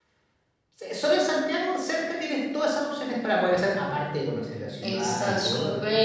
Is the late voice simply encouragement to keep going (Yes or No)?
No